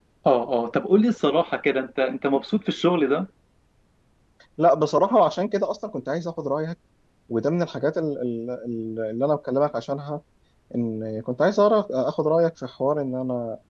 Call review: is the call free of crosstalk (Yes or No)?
Yes